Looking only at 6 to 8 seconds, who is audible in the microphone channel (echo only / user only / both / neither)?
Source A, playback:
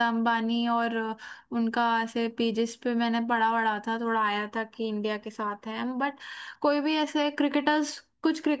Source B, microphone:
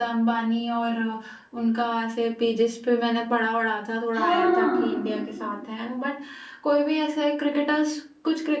echo only